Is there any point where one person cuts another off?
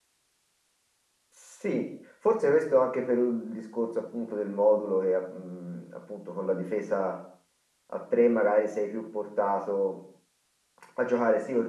No

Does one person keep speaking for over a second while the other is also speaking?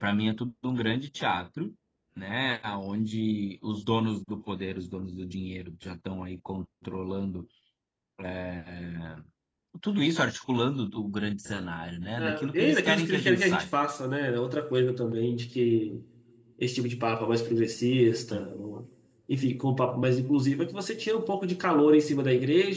Yes, from 12.2 s

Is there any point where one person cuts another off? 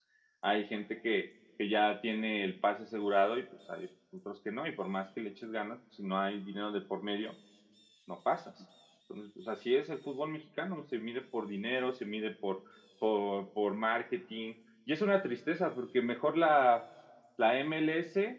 No

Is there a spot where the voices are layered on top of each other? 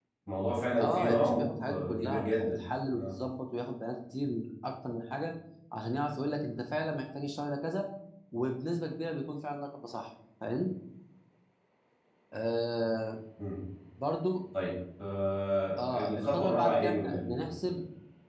Yes, from 0.8 s

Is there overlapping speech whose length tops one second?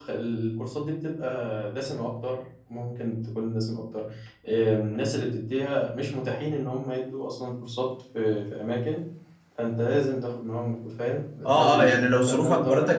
Yes, from 11.4 s

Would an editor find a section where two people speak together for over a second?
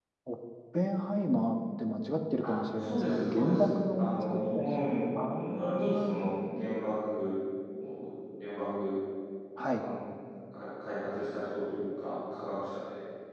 Yes, from 2.4 s

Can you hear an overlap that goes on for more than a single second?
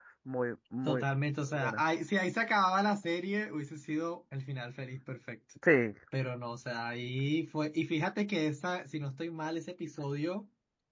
No

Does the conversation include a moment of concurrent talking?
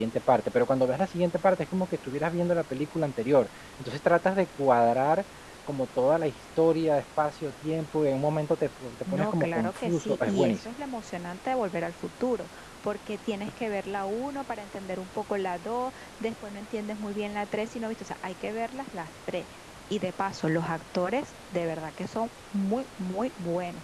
Yes, from 9.1 s

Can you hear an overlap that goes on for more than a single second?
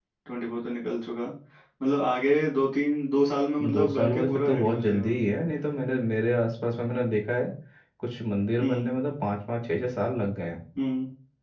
Yes, from 3.6 s

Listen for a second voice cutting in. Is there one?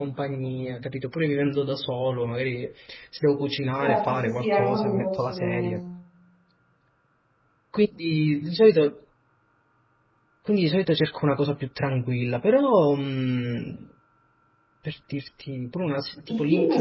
Yes, from 3.8 s

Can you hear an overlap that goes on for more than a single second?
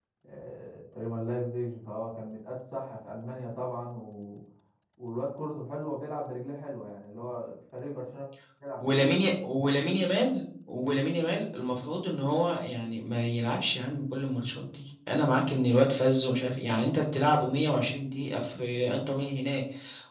No

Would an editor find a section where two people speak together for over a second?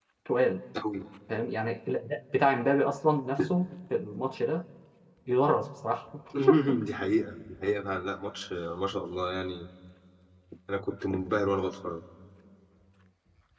No

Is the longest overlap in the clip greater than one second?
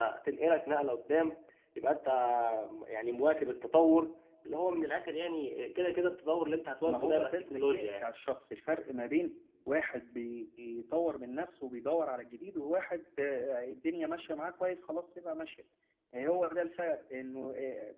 Yes, from 6.8 s

